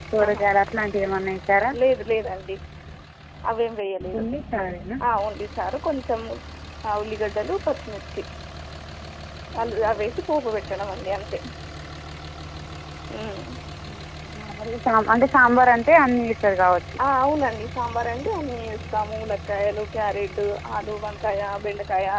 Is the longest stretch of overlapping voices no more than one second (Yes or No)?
Yes